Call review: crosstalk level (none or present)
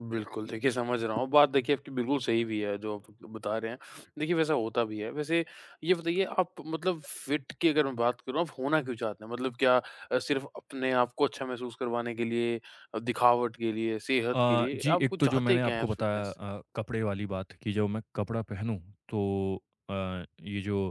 present